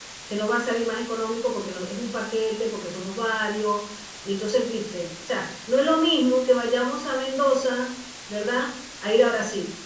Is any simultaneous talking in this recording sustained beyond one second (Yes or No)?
No